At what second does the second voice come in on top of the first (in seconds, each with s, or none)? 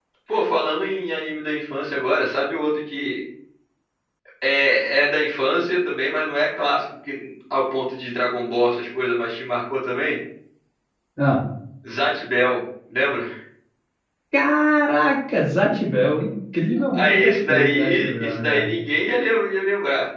16.9 s